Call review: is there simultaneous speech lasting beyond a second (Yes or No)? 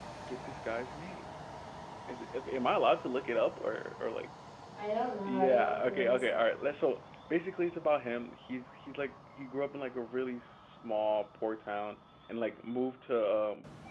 Yes